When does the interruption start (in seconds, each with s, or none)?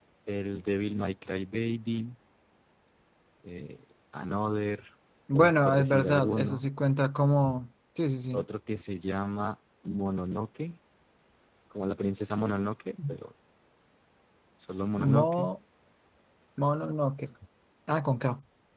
5.3 s